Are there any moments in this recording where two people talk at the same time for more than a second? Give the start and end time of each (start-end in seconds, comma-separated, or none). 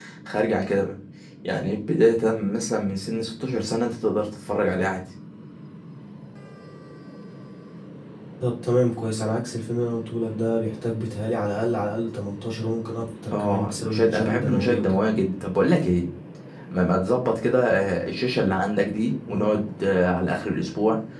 13.4-15.0